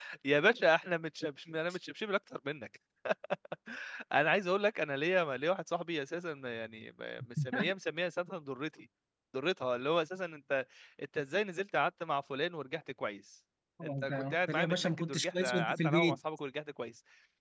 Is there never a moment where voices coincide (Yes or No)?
No